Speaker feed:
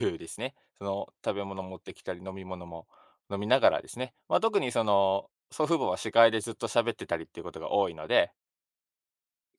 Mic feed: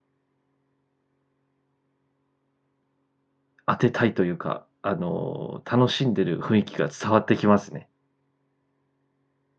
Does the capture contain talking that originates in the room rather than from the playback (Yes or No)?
Yes